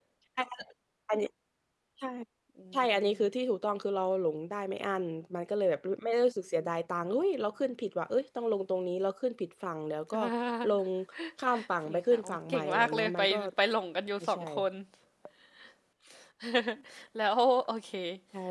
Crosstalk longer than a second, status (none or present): present